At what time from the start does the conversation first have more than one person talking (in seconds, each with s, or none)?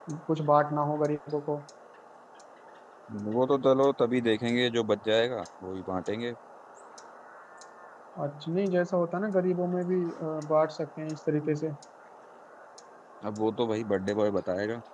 none